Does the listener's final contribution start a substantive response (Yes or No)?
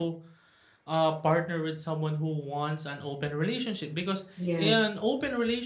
No